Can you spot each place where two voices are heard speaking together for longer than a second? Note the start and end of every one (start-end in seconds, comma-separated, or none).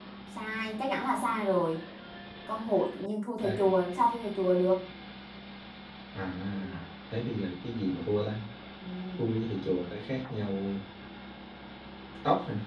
none